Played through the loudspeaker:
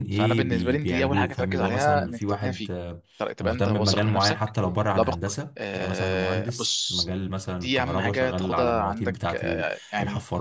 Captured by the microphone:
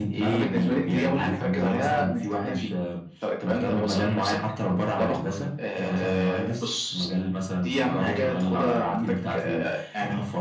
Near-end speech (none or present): none